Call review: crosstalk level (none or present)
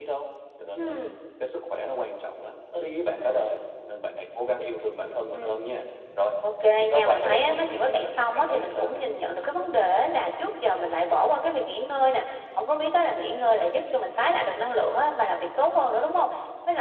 present